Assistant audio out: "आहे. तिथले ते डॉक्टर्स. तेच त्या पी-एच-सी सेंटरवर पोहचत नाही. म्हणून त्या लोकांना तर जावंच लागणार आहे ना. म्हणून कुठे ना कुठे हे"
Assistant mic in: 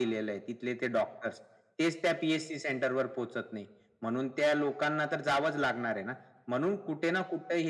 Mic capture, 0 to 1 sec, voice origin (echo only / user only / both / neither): echo only